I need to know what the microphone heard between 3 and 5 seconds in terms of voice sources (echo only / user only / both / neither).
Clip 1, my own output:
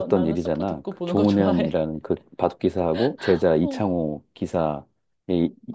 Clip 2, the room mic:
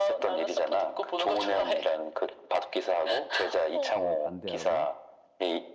both